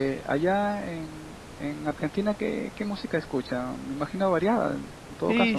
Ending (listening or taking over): taking over